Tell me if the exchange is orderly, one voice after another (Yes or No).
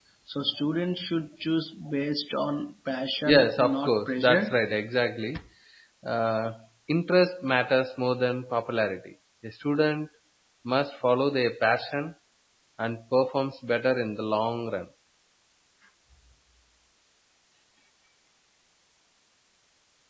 No